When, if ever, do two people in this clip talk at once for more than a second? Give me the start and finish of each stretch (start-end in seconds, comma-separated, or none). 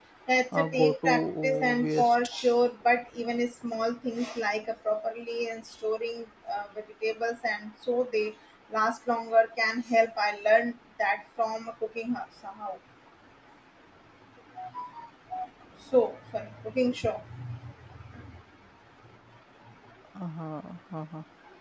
0.6-2.1